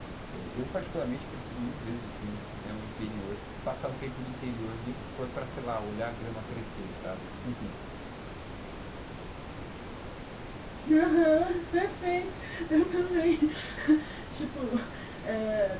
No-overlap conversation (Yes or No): Yes